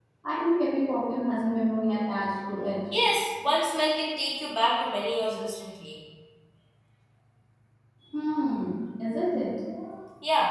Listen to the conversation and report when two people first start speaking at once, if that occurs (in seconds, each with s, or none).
none